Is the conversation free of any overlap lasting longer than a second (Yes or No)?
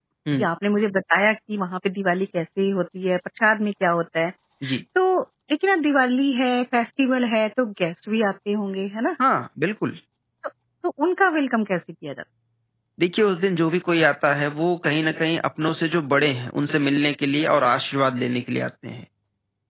Yes